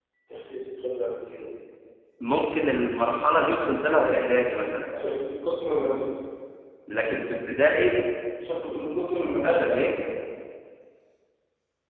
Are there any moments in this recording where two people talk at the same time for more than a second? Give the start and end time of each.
none

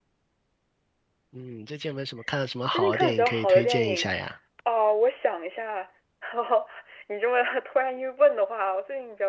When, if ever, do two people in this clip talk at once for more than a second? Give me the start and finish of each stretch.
2.7-4.1

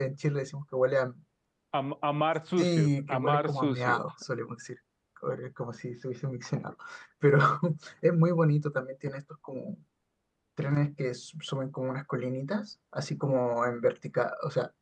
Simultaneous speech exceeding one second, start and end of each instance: 2.6-4.0

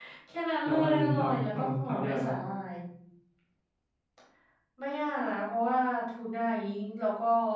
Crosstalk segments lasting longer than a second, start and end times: 0.7-2.3

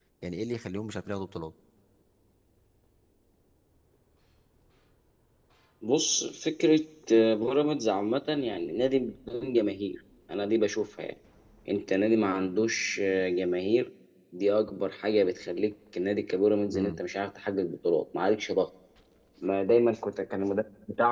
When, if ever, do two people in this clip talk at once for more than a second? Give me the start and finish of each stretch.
none

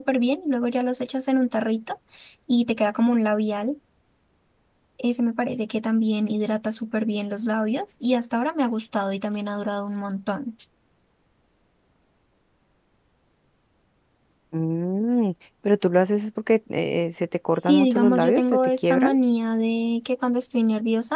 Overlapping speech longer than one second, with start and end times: 17.5-19.1

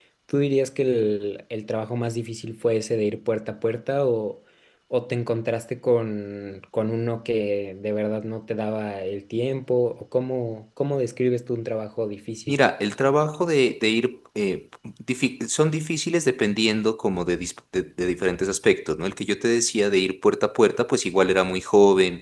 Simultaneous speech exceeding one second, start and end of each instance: none

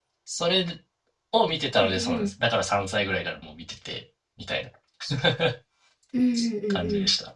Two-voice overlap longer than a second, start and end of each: none

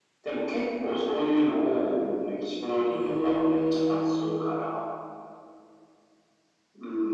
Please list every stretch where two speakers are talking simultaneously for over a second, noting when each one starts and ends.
2.9-4.4

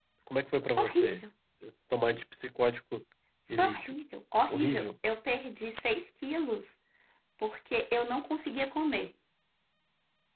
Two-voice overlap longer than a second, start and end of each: none

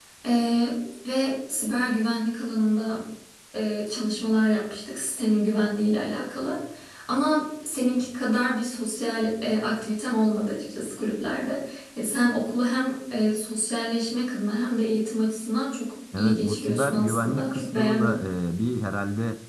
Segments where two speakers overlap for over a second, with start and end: 16.2-18.2

